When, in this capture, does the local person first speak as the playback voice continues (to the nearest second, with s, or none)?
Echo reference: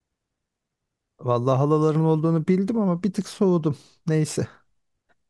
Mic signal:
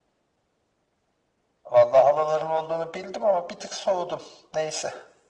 none